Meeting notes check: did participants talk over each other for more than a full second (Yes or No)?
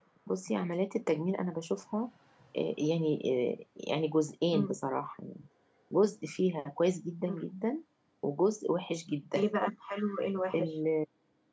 No